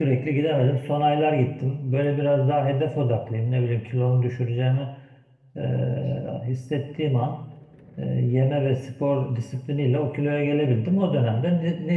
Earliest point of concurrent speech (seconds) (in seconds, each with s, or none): none